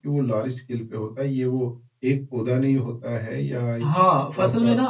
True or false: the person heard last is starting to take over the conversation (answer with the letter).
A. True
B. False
A